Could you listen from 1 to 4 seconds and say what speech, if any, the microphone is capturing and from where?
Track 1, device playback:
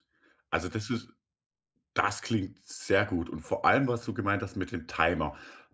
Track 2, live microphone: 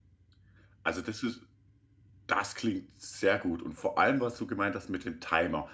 echo only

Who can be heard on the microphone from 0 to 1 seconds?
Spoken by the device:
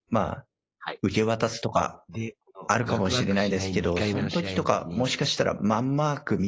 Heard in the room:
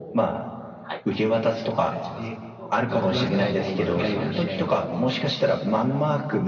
echo only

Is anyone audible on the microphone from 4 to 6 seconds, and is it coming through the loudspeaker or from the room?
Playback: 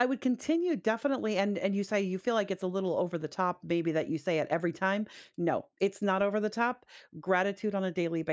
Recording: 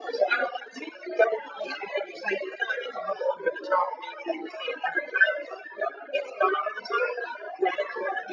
echo only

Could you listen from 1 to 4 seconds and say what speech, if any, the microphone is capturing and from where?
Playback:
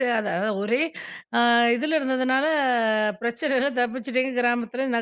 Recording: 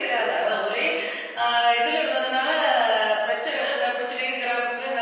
echo only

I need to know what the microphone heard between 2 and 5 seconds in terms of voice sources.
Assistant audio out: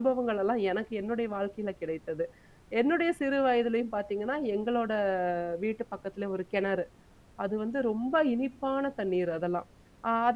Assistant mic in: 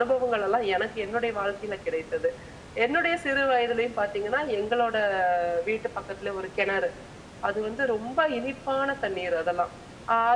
echo only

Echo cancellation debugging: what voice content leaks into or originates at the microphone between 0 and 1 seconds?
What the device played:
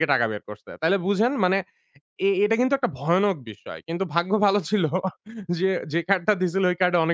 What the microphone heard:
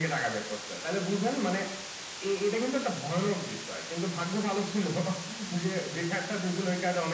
echo only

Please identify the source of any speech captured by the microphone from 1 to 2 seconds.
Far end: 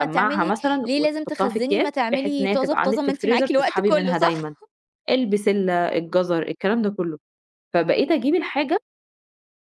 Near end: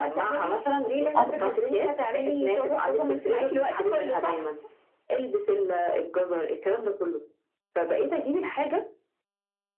both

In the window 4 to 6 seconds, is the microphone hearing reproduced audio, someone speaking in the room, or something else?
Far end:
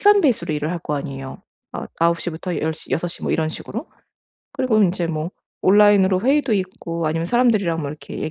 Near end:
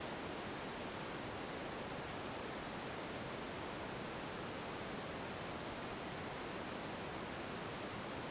neither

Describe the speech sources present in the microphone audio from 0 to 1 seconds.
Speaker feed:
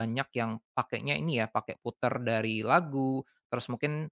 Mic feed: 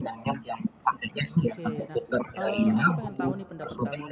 echo only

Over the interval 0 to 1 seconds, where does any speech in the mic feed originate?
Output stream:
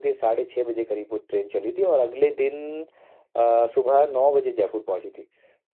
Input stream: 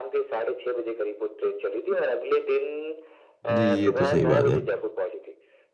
echo only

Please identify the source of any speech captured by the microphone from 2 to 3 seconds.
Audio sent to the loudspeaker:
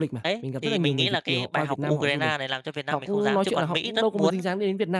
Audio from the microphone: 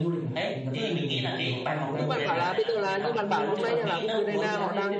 both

